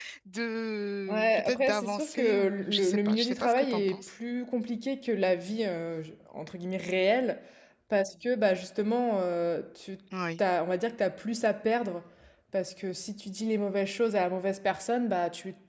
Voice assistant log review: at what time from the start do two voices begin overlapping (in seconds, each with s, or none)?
1.1 s